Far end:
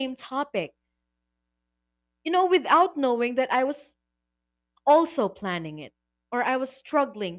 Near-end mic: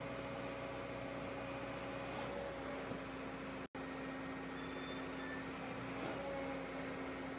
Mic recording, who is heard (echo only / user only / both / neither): neither